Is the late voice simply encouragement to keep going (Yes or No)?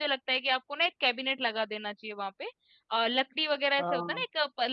Yes